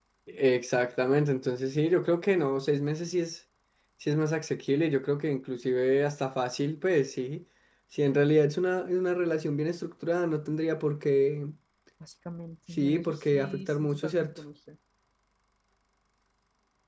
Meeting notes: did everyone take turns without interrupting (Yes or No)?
No